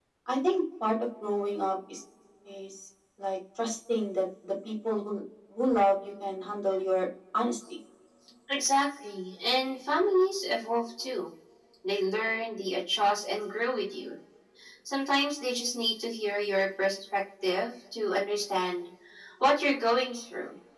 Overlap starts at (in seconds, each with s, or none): none